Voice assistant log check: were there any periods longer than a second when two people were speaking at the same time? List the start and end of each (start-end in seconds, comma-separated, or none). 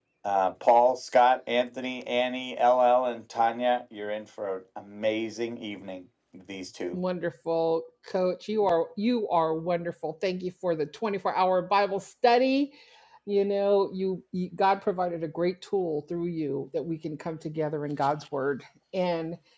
none